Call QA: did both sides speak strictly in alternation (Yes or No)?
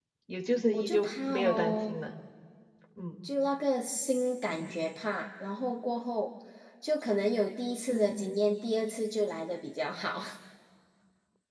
No